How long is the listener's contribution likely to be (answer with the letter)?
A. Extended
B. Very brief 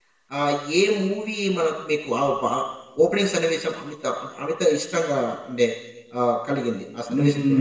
A